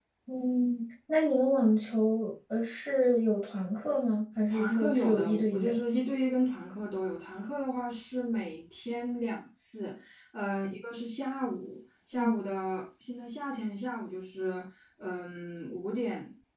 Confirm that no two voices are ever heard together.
No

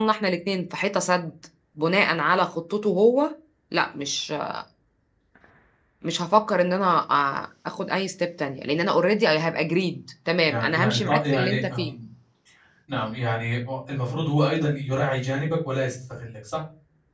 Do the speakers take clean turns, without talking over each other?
No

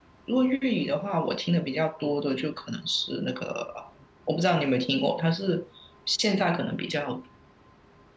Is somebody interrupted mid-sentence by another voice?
No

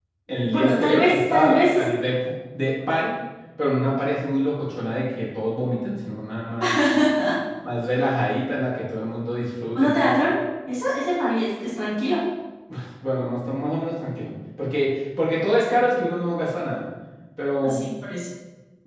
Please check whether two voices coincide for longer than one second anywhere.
Yes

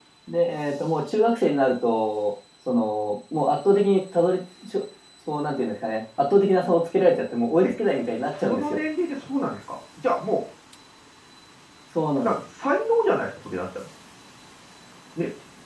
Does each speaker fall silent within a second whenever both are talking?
Yes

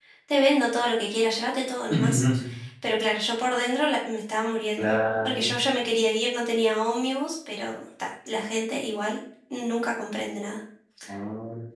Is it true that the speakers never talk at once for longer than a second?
Yes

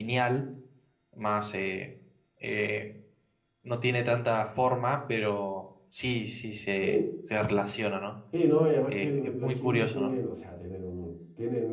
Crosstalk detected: Yes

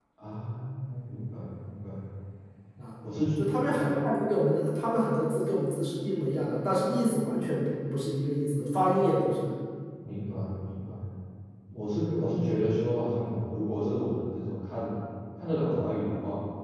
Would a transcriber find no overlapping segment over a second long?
Yes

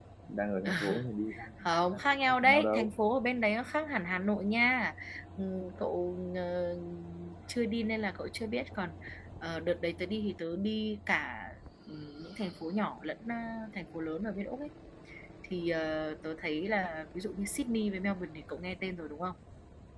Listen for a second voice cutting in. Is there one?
Yes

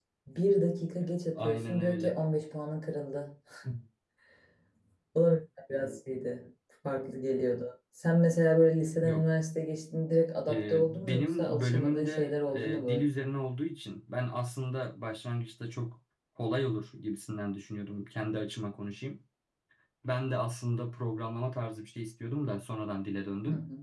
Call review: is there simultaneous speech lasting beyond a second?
Yes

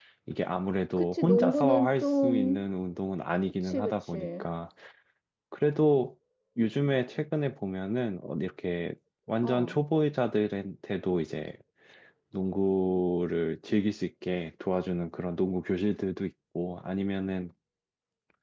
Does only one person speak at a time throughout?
No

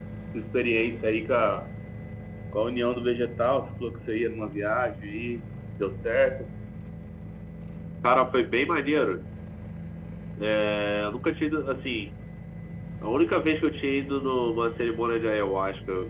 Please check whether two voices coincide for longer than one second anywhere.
No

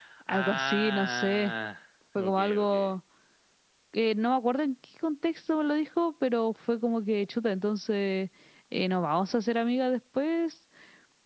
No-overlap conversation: No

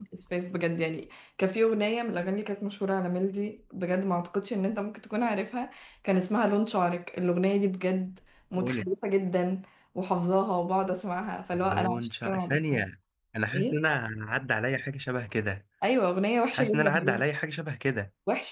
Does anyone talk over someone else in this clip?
Yes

